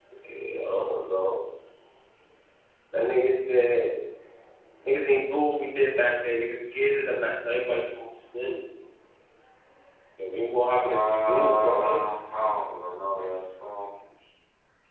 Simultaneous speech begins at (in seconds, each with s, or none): 10.8 s